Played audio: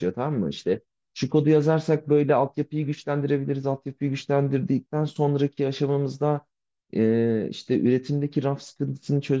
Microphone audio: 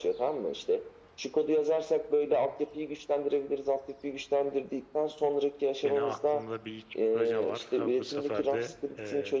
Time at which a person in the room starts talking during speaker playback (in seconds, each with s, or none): 5.8 s